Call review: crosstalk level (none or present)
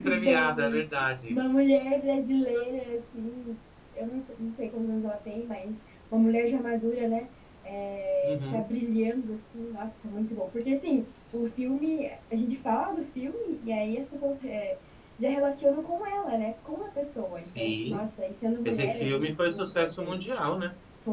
present